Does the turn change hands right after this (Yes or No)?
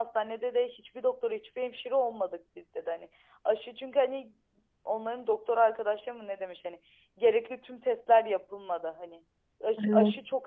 No